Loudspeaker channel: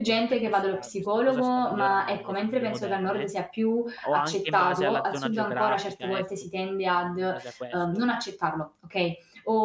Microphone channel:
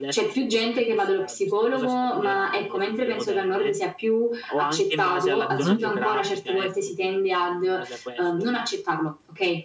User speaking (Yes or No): Yes